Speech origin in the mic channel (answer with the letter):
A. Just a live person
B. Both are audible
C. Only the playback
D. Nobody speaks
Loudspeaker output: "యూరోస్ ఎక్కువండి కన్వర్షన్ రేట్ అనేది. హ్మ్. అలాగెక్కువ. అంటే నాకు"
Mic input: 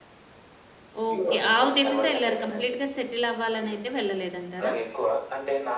B